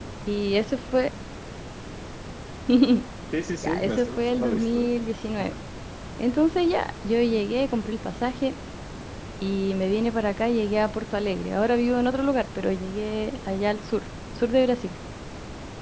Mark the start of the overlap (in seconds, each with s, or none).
3.6 s